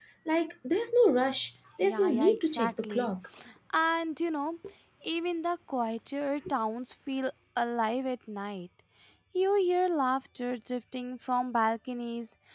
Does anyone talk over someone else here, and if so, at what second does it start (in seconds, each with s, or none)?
1.8 s